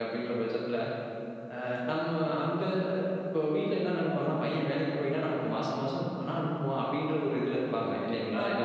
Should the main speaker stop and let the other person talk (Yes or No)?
Yes